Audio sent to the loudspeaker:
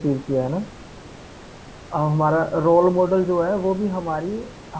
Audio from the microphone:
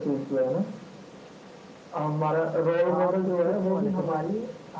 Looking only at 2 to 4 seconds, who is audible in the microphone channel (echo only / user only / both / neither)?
both